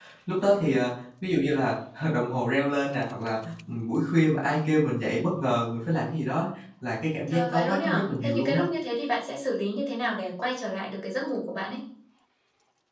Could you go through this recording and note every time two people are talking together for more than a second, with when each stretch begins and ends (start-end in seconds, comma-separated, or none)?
7.3-8.6